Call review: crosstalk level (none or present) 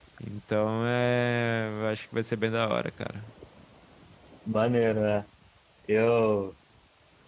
none